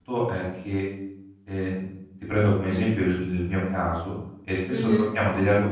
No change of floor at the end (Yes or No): Yes